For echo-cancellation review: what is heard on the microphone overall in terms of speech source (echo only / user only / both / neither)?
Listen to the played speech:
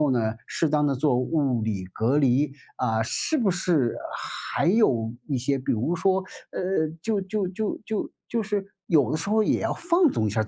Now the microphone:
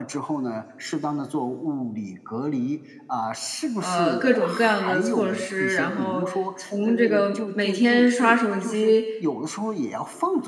both